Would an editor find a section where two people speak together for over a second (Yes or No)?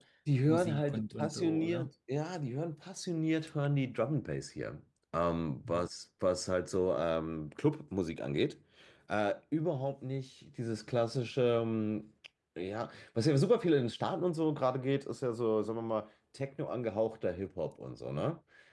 Yes